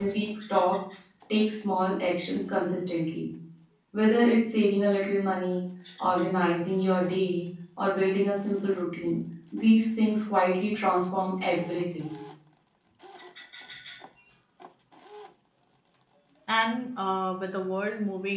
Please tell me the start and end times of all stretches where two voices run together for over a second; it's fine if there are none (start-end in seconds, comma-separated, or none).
none